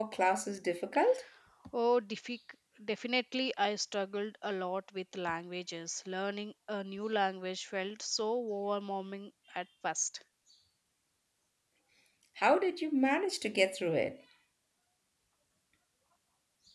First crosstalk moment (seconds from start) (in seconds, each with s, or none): none